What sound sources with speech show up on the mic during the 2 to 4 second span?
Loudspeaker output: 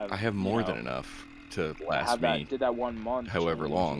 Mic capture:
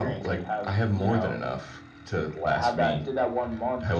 echo only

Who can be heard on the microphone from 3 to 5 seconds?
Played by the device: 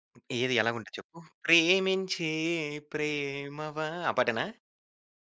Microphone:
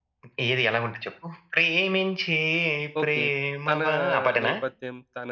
both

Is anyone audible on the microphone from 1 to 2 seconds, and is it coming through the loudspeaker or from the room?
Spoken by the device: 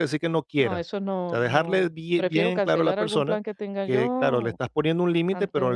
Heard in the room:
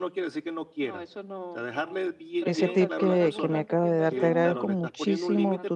echo only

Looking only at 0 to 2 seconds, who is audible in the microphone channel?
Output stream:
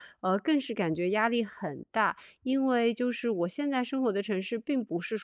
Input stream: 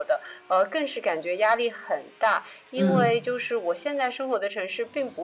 echo only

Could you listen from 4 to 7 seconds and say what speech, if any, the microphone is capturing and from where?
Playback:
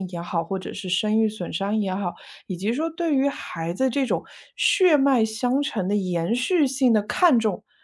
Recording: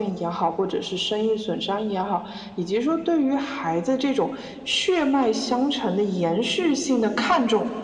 echo only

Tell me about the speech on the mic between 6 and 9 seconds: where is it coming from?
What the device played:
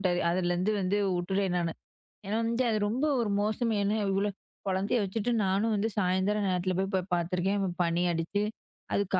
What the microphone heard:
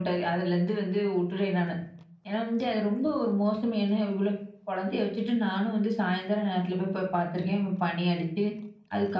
echo only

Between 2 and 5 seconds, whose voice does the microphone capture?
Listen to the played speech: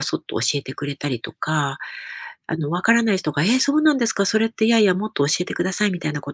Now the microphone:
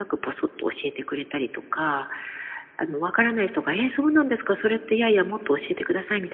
echo only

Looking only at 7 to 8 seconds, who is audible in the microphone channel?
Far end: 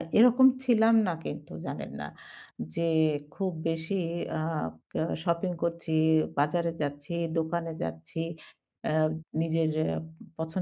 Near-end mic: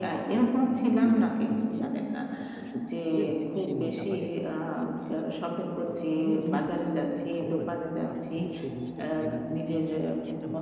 both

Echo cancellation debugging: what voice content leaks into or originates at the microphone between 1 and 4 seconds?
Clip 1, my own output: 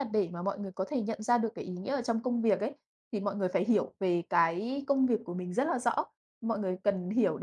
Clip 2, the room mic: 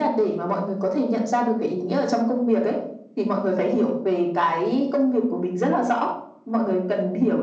echo only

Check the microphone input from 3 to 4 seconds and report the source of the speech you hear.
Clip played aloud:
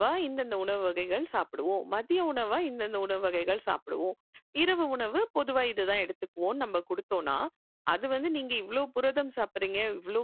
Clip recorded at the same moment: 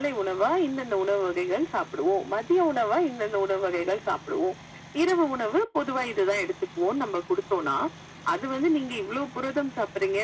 echo only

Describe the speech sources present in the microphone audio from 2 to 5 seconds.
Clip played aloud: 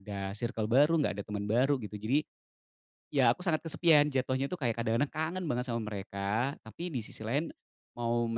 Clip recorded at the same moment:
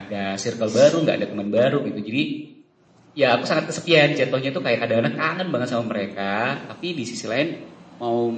echo only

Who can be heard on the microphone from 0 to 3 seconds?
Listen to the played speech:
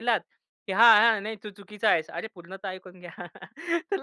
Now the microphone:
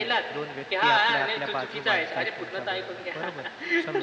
both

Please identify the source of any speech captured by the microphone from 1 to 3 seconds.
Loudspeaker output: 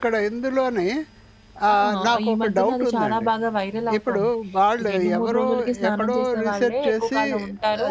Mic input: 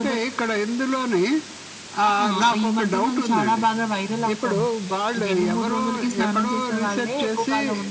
echo only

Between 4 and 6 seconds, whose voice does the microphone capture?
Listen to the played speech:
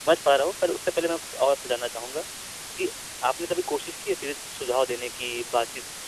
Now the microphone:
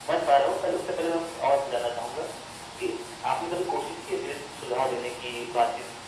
echo only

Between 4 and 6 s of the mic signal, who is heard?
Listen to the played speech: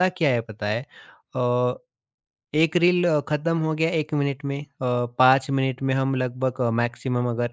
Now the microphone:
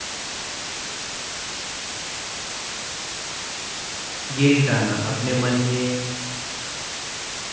user only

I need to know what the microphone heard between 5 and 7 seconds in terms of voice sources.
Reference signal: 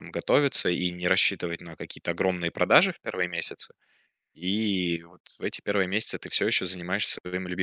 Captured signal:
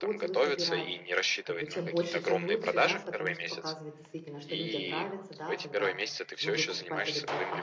both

